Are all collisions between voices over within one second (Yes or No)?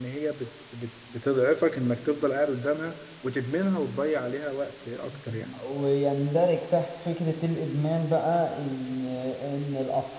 Yes